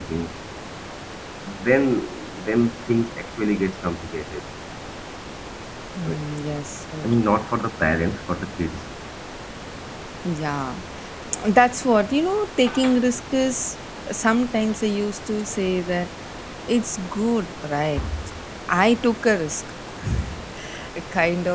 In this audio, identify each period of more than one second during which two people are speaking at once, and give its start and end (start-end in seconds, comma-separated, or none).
none